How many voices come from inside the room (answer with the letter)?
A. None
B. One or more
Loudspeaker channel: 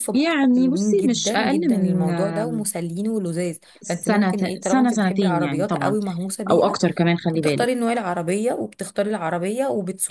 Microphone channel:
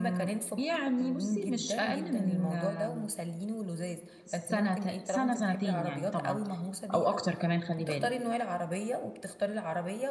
A